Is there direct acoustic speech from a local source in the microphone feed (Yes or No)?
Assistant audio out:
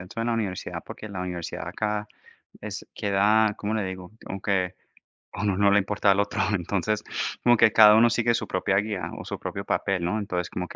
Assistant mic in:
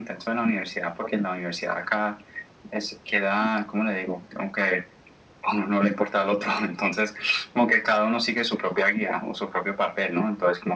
No